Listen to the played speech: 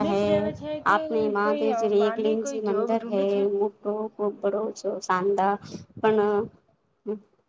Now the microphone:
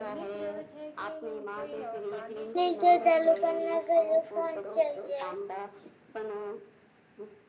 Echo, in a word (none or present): present